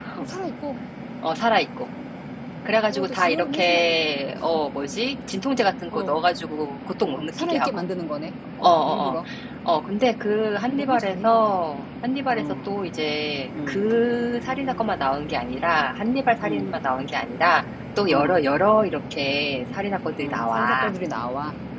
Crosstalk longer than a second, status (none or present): present